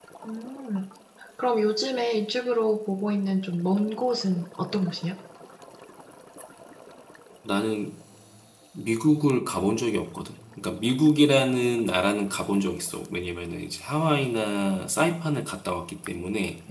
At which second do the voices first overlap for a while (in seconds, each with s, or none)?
none